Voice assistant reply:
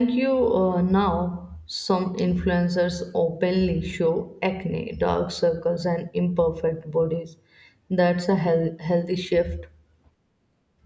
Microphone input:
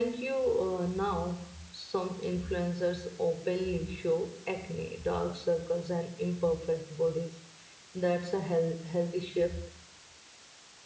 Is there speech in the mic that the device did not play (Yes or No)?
No